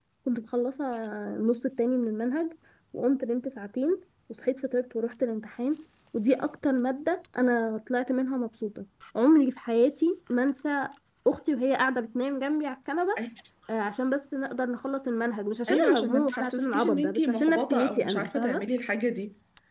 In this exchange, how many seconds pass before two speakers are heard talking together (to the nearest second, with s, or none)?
16 s